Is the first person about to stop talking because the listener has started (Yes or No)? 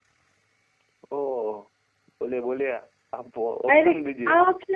Yes